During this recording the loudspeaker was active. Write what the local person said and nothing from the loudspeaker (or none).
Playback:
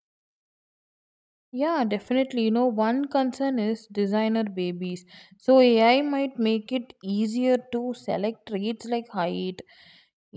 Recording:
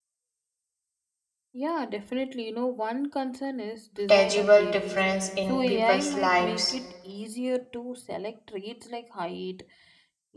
tangible difference in people's lives.